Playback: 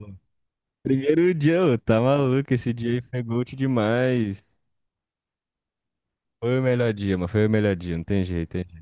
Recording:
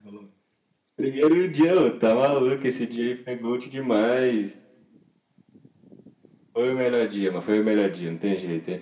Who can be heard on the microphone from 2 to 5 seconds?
echo only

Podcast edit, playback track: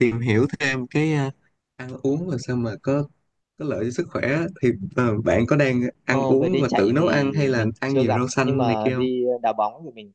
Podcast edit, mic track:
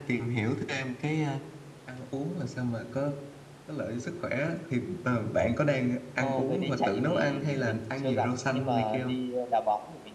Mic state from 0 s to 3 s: echo only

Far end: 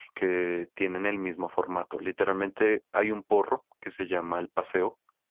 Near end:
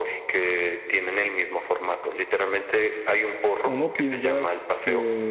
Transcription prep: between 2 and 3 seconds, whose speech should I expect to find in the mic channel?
echo only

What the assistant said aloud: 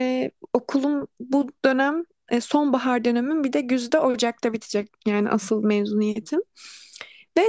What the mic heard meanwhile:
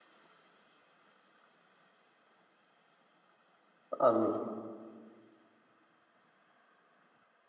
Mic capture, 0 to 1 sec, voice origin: neither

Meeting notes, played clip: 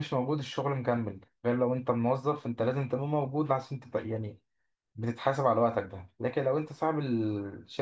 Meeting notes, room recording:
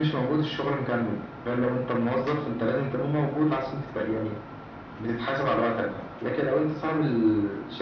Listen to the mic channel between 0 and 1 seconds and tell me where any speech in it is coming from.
echo only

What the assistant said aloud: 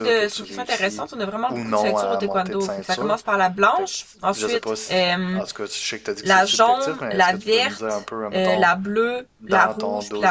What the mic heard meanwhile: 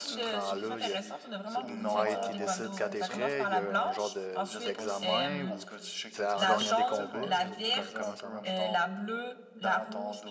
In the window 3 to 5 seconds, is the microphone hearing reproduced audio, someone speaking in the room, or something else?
both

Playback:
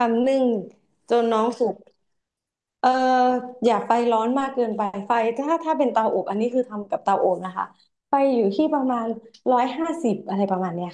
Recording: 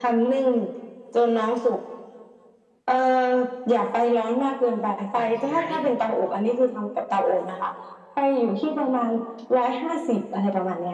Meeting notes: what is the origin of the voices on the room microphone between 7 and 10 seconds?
echo only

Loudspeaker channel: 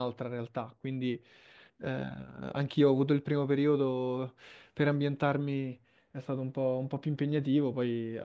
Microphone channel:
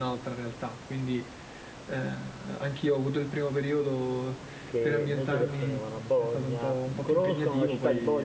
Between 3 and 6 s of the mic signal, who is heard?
both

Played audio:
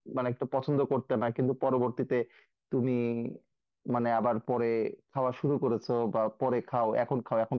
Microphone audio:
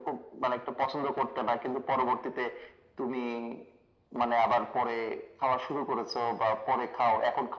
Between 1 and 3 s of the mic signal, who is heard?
echo only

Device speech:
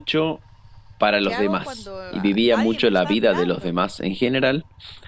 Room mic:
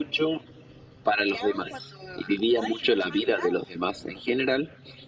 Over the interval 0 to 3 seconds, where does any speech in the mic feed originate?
echo only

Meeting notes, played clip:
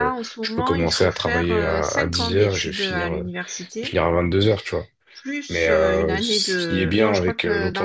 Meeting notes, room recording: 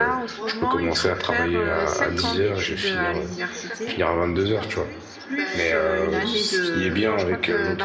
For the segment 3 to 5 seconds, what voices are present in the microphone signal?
both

